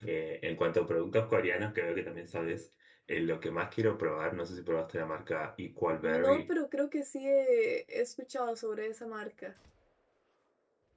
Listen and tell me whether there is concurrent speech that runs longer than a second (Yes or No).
No